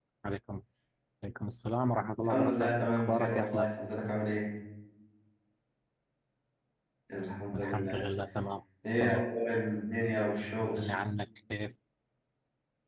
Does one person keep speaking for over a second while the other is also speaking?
Yes, from 2.2 s

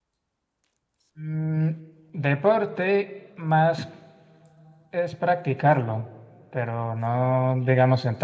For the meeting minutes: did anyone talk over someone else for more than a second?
No

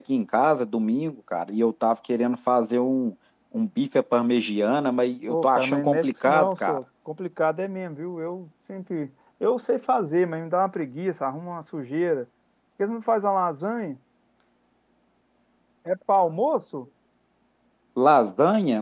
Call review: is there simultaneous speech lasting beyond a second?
Yes, from 5.3 s

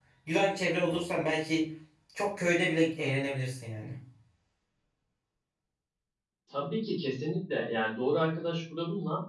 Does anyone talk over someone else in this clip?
No

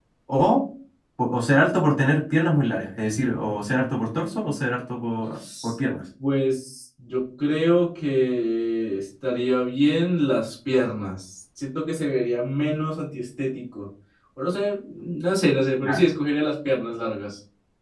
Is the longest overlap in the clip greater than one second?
No

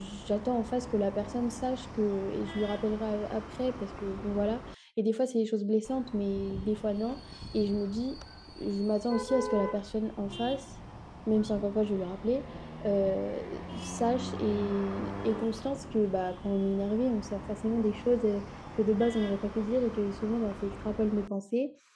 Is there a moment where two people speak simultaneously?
No

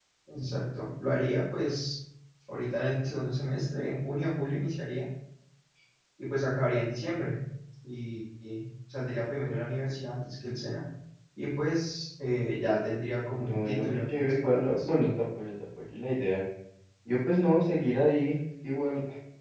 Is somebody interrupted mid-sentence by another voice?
Yes, from 13.2 s

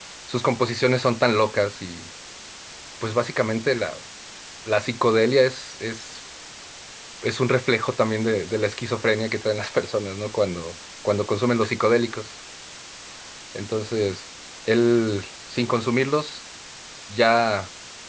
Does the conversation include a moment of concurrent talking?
No

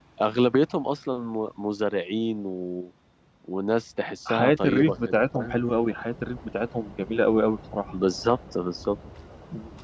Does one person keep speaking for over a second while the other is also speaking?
Yes, from 4.3 s

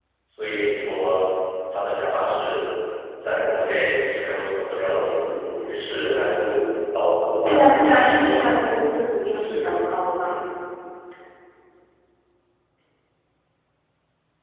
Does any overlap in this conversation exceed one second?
Yes, from 7.4 s

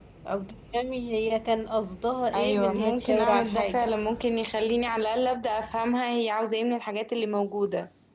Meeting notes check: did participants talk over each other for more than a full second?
Yes, from 2.3 s

